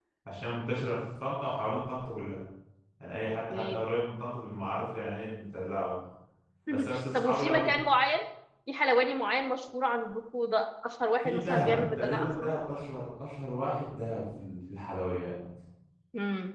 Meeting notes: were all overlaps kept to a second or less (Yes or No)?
No